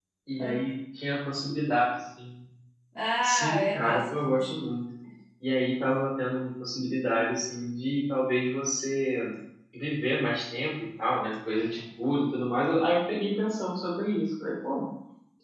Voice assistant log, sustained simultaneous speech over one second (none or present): present